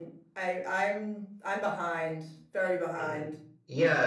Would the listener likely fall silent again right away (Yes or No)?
No